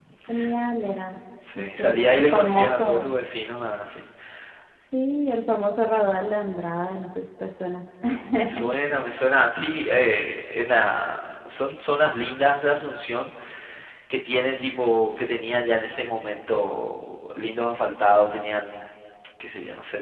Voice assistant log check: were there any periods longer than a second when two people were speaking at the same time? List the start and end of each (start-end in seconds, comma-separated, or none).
1.6-3.1